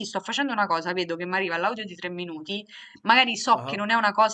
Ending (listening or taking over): listening